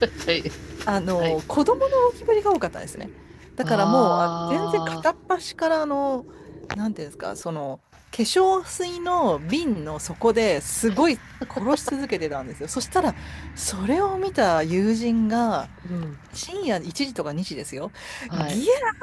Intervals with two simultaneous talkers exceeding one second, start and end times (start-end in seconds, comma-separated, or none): 3.6-5.0